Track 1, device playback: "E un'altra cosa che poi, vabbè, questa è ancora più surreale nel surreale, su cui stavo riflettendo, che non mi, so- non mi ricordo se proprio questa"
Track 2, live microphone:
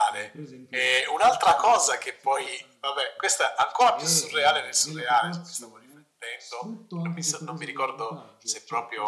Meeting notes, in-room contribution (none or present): present